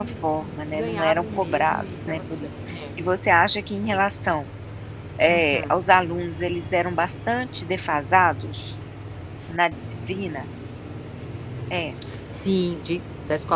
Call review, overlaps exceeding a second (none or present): present